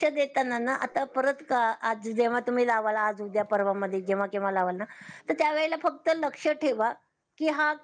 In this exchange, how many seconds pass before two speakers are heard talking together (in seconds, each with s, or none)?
none